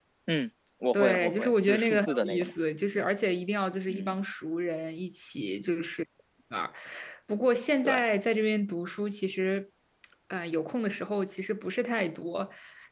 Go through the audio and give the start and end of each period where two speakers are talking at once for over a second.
0.9-2.5

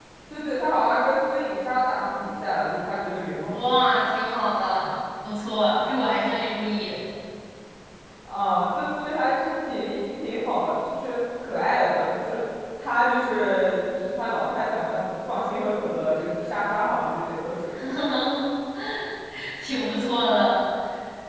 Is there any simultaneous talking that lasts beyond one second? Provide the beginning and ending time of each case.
none

